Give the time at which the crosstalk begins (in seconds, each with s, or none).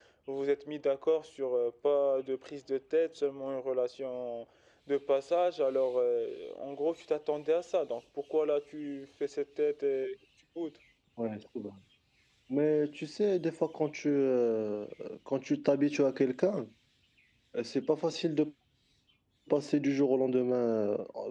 none